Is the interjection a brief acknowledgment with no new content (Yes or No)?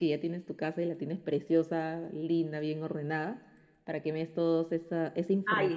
No